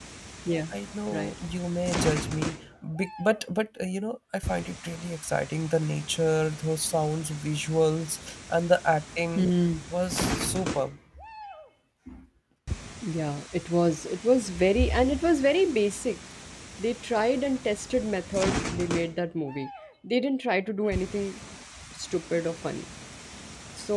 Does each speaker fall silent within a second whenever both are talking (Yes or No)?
Yes